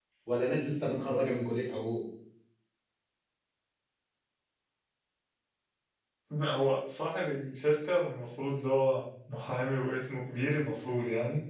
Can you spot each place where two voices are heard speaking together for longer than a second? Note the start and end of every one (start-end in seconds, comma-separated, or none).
none